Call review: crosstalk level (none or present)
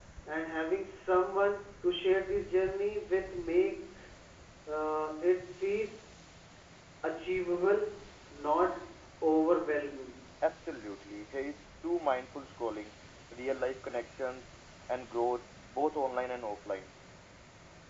none